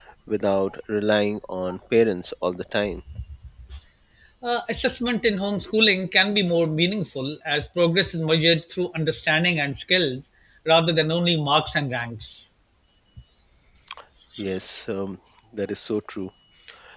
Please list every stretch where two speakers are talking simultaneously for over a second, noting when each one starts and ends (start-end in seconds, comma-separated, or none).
none